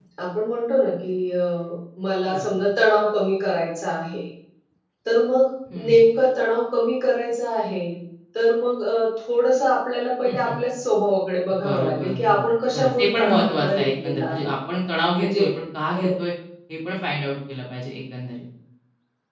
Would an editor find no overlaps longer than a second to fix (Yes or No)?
No